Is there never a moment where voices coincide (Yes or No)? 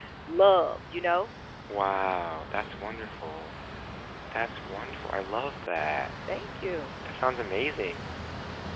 Yes